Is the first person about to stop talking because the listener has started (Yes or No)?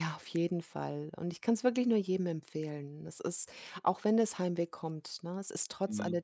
No